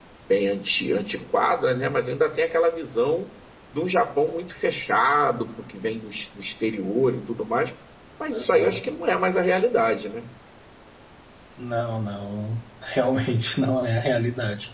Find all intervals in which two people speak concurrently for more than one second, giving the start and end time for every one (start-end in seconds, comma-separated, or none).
none